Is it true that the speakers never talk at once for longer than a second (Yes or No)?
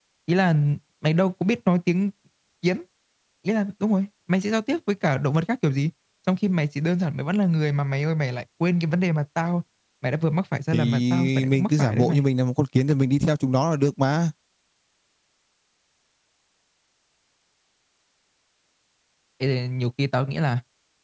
No